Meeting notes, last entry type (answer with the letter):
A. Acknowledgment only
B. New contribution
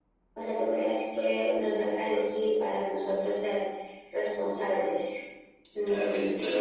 B